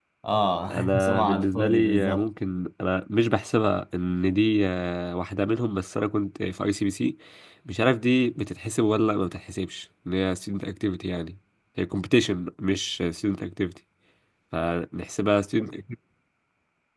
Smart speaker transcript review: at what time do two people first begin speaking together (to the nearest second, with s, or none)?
1 s